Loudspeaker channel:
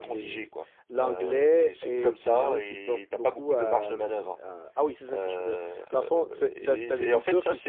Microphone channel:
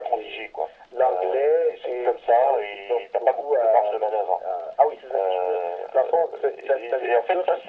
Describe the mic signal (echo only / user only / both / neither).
echo only